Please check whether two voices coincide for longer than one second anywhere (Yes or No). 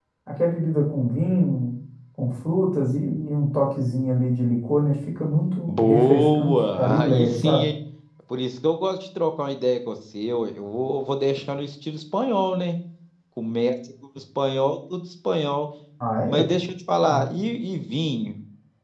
Yes